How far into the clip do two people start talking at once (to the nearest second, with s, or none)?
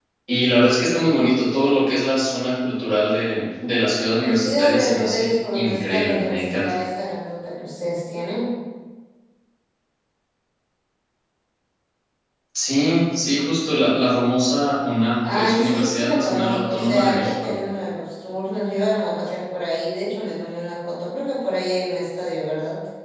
4 s